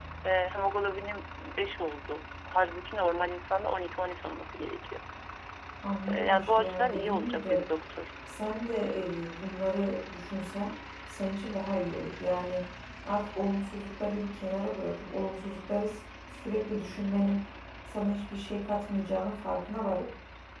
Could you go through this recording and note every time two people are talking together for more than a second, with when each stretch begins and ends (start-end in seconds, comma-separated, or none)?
6.1-7.6